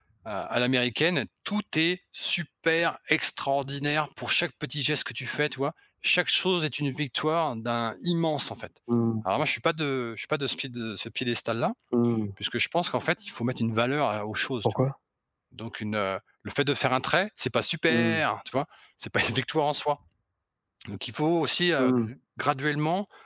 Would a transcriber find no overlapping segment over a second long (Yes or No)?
Yes